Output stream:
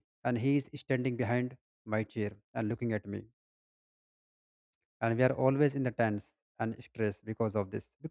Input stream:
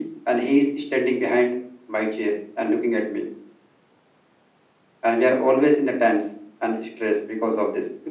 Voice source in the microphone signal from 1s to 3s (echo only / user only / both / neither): echo only